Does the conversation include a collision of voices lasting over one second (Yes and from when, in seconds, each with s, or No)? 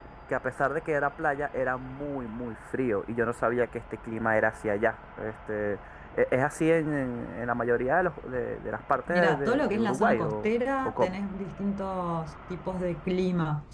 Yes, from 9.1 s